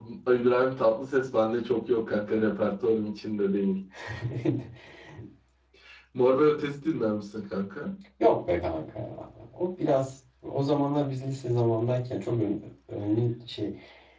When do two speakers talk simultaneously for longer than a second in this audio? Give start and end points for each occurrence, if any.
none

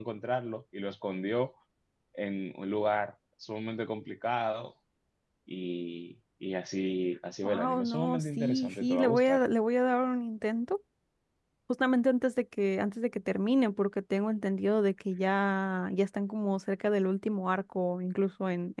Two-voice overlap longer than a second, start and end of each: 7.4-9.4

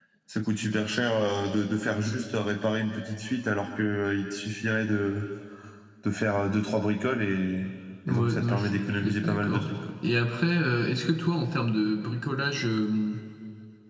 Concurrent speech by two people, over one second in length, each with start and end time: 8.1-9.7

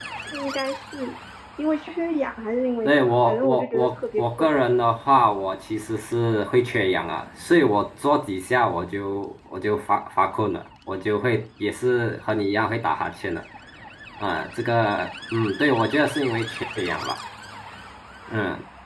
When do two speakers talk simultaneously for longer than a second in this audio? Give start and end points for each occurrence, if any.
2.8-4.5

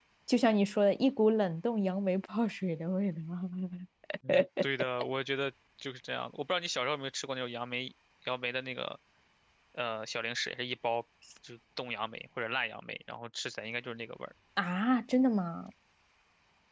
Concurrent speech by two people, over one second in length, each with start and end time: none

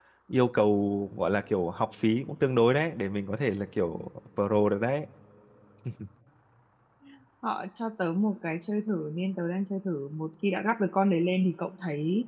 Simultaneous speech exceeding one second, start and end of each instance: none

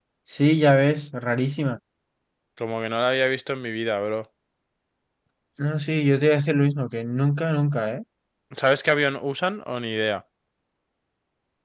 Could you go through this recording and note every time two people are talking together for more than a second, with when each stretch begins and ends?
none

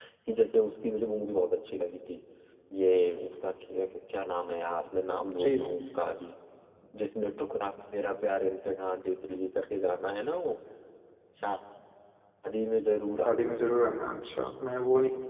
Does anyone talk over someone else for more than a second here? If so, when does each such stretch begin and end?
none

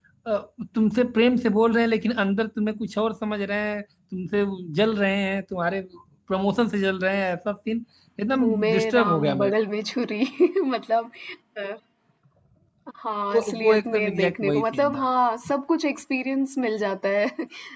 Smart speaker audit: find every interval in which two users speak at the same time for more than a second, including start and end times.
8.3-9.5, 13.3-15.0

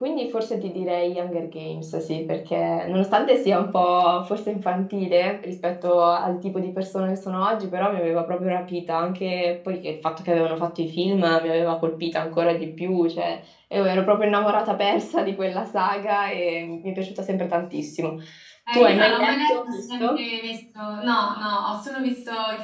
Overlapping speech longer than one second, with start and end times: 18.7-20.0

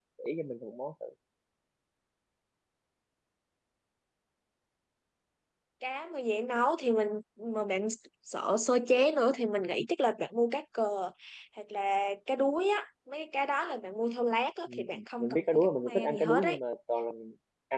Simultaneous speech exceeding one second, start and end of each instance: 15.2-16.6

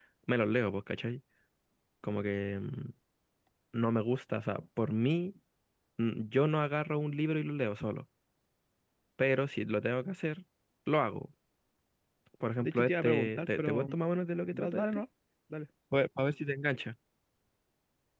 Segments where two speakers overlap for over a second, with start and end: 12.6-13.9

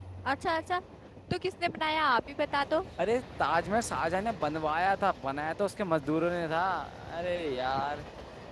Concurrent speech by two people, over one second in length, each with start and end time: none

